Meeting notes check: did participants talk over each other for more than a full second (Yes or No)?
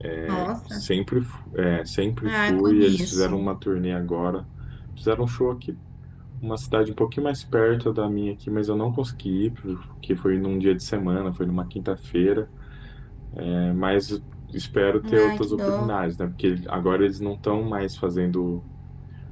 Yes